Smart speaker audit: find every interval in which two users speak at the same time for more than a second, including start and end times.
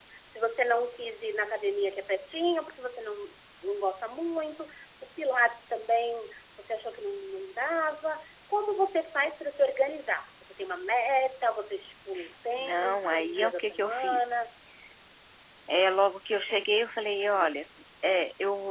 12.6-14.3

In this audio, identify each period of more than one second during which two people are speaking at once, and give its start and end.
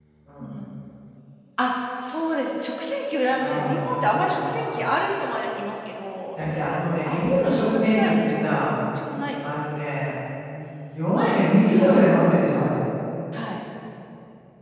3.4-4.8, 7.0-8.8

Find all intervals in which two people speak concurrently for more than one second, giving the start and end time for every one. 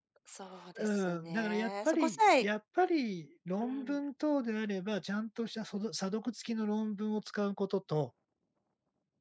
0.8-2.5

